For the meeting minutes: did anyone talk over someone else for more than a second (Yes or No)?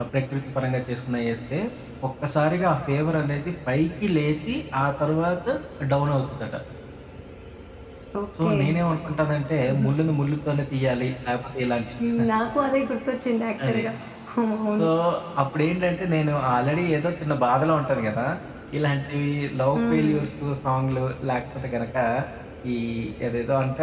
No